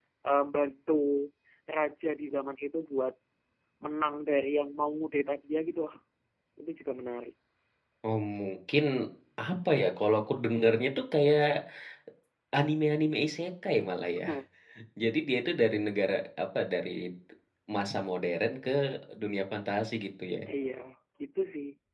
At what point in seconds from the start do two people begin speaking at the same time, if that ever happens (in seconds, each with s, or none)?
none